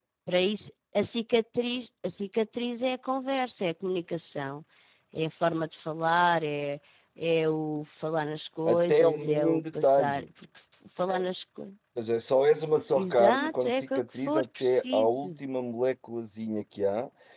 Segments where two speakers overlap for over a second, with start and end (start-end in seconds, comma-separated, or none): 8.7-10.3, 12.9-15.3